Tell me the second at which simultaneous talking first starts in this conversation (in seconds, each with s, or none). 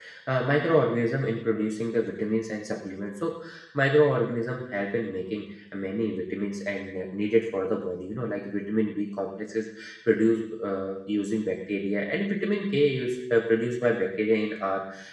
none